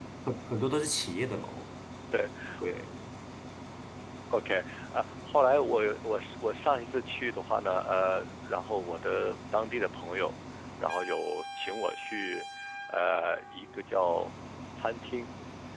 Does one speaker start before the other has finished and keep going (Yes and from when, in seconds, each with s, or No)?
No